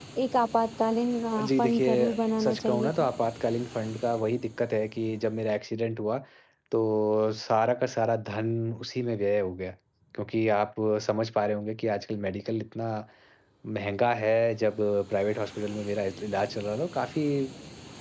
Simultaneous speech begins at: 1.3 s

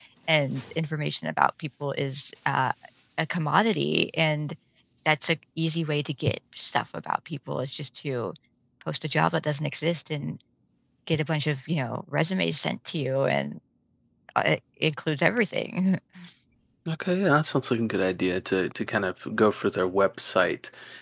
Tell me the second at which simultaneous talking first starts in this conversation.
none

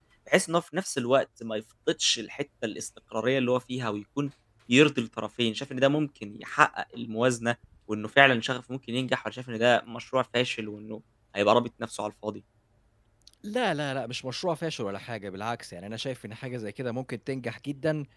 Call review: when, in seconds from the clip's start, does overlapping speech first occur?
none

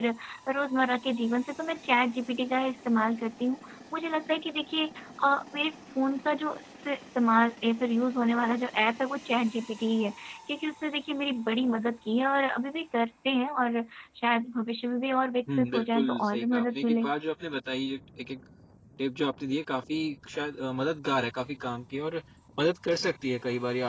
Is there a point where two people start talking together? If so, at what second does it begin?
15.5 s

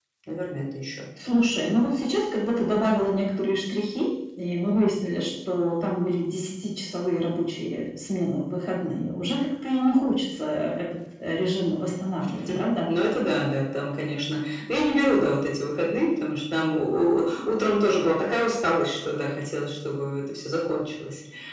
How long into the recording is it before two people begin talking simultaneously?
none

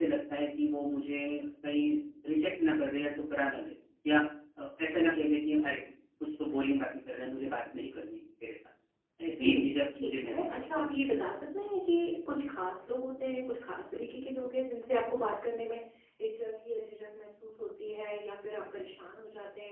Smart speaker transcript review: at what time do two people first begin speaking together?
9.4 s

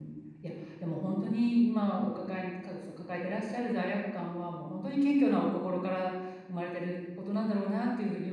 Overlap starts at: none

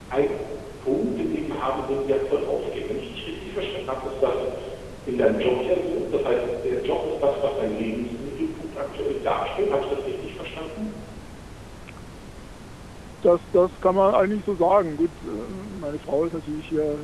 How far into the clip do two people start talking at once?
none

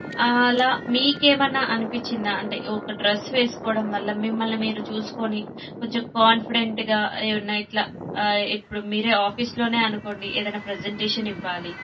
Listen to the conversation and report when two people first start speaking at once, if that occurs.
none

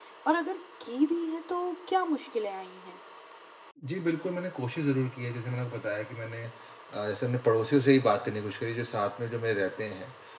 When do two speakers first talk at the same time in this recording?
none

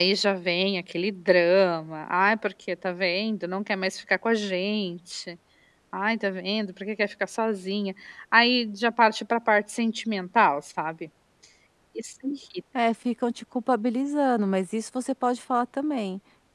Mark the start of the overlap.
none

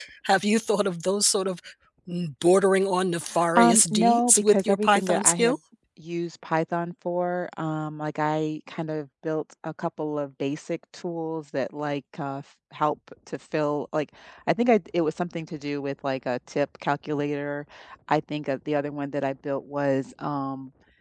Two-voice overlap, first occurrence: 3.6 s

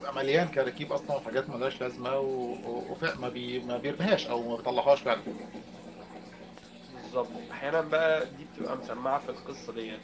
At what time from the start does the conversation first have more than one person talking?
none

